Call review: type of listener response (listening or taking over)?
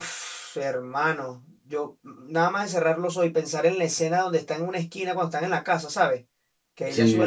listening